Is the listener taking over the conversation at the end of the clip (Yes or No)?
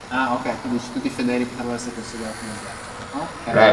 Yes